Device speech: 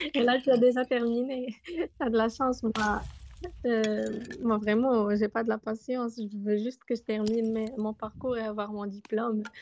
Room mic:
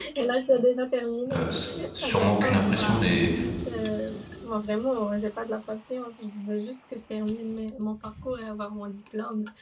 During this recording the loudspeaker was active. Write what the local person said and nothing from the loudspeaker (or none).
Euh, c'est sûrement qu'une impression, mais